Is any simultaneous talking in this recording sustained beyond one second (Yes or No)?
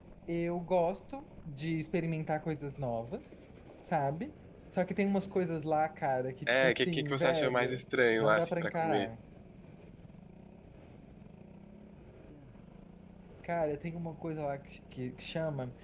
Yes